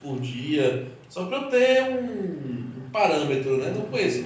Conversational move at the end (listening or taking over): taking over